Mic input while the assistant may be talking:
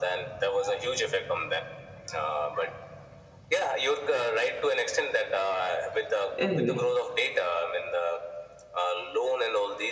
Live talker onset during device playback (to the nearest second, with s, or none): 6 s